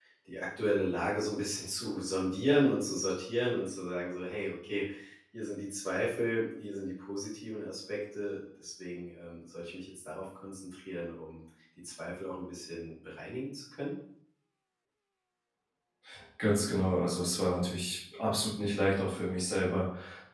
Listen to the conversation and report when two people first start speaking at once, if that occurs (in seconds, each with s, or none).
none